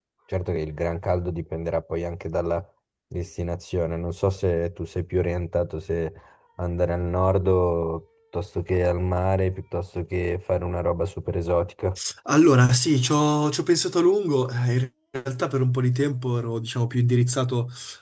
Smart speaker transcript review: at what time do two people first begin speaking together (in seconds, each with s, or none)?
none